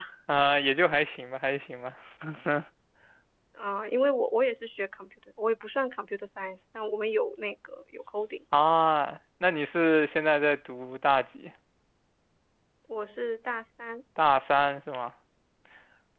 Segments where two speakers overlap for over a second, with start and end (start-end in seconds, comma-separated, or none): none